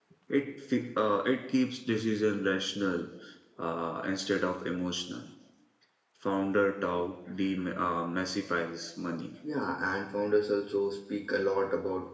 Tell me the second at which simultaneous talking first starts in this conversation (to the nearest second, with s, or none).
none